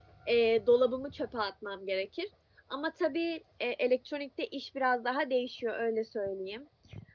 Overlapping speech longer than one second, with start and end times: none

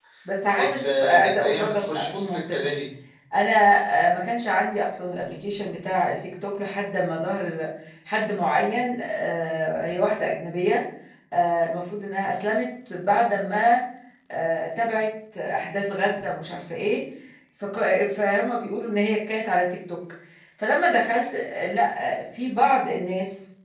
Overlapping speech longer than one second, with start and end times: 0.5-2.6

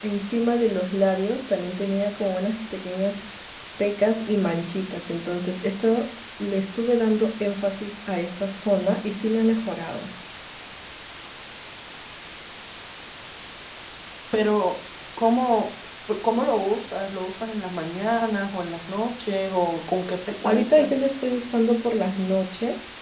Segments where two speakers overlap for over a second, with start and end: none

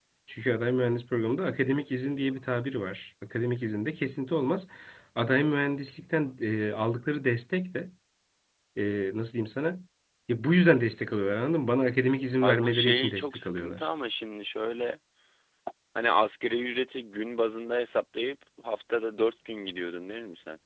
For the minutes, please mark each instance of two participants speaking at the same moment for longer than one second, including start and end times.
12.4-13.9

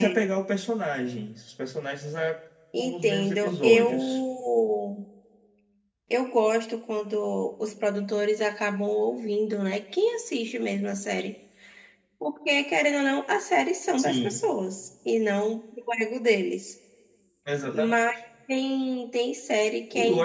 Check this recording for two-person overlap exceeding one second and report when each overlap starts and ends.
2.8-4.2

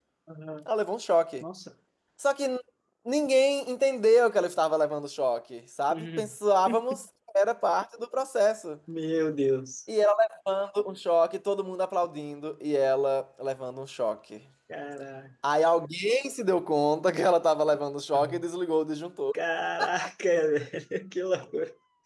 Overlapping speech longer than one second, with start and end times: none

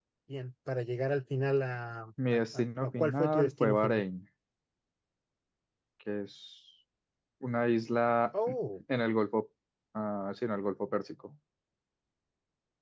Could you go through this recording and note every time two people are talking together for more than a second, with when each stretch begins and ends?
2.5-4.0

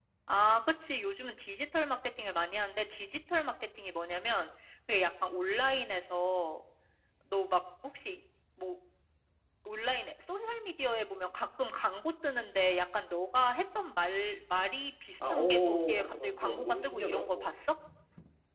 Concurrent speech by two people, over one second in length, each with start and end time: 15.3-17.5

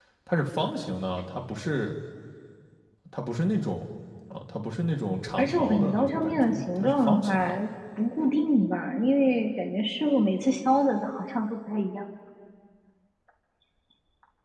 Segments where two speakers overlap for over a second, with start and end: 5.4-7.3

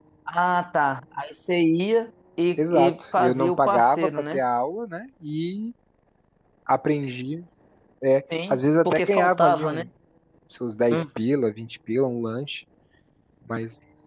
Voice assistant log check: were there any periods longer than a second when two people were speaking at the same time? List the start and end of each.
2.6-4.4, 8.5-9.8

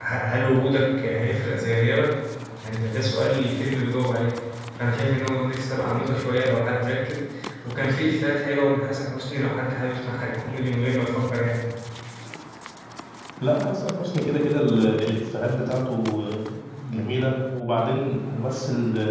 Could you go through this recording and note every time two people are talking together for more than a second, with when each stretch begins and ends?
none

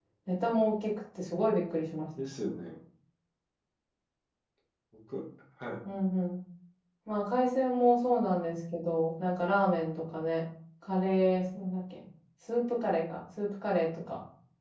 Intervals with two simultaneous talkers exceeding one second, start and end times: none

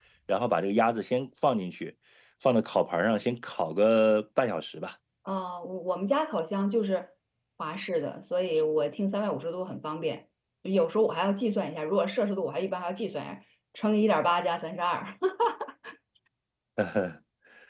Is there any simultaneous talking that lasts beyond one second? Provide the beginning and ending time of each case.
none

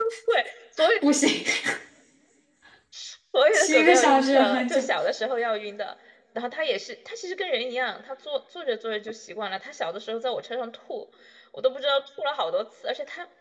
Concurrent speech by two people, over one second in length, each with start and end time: 3.5-4.8

